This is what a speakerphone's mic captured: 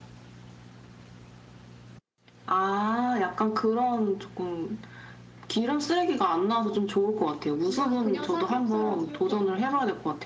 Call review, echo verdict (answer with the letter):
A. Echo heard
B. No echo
A